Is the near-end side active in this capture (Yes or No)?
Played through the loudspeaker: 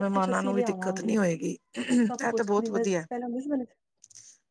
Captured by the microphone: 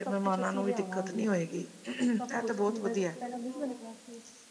Yes